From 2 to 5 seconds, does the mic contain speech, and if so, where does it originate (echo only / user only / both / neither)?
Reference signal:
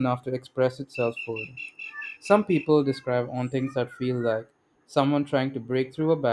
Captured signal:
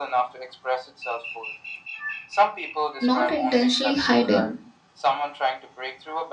both